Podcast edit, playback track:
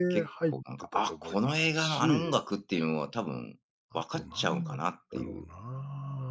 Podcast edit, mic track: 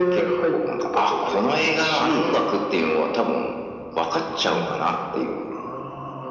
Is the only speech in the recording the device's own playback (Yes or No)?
Yes